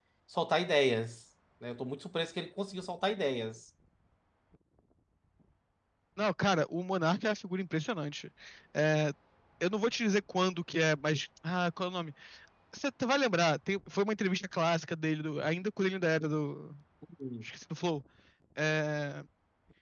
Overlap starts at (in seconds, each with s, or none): none